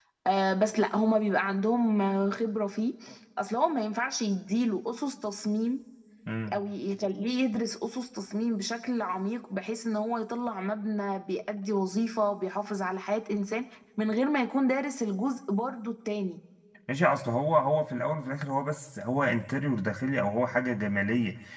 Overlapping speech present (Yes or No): No